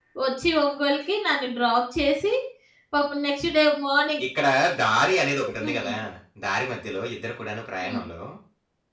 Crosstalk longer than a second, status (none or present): none